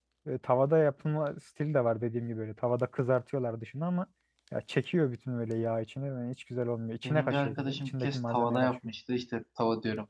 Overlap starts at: 7 s

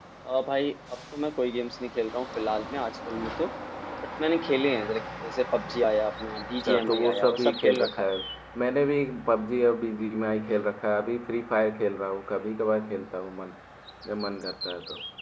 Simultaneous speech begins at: 7 s

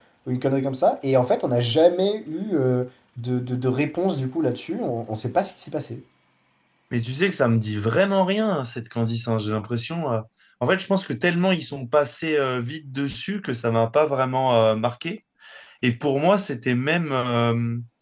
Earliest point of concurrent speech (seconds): none

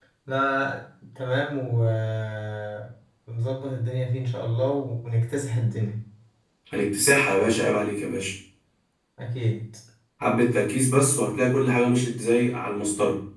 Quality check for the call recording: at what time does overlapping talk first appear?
none

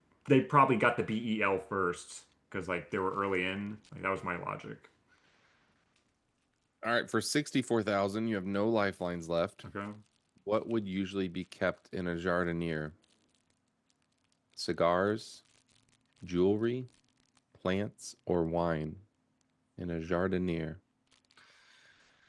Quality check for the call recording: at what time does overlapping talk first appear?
none

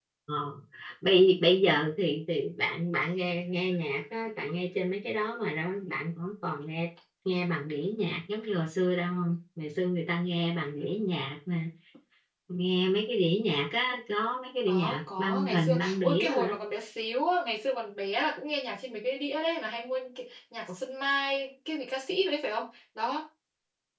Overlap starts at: 15 s

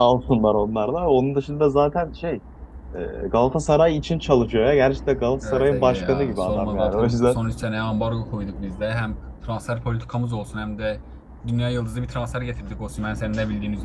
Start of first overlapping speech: 5 s

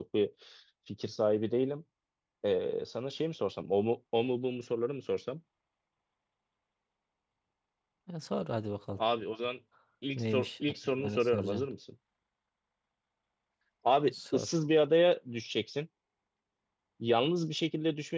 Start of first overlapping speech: 10 s

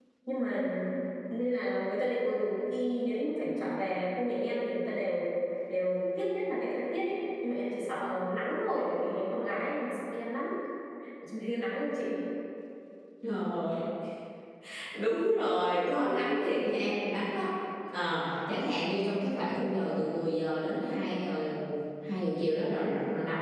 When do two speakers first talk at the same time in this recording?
none

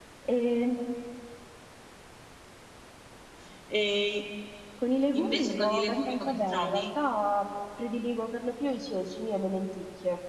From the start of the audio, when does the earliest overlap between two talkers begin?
5 s

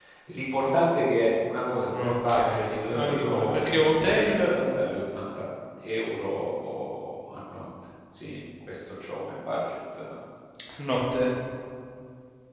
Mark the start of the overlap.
2 s

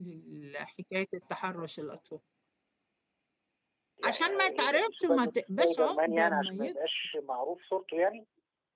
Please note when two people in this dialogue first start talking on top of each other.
4 s

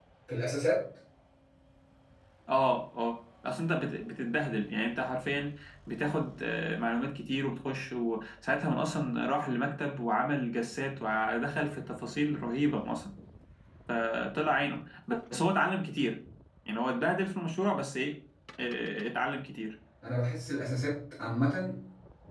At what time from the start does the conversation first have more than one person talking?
none

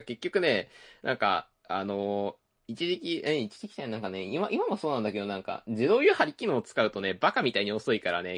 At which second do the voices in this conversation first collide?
none

